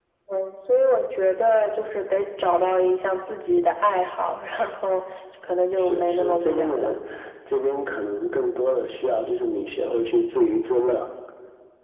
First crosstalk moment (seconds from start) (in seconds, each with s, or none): 5.8 s